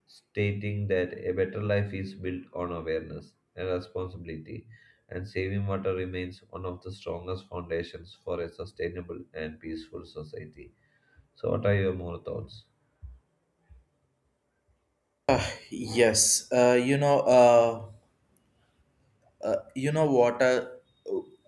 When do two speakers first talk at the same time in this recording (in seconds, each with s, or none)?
none